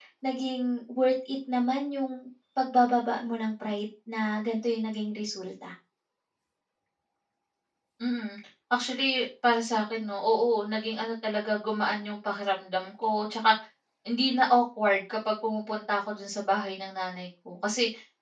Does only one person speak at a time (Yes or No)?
Yes